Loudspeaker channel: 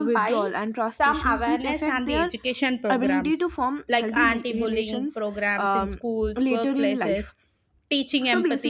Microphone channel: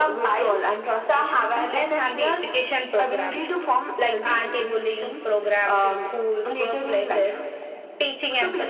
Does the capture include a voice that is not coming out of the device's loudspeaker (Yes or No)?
No